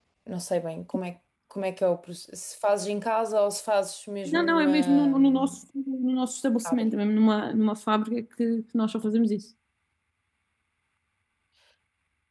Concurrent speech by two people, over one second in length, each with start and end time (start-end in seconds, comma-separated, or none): 4.2-5.5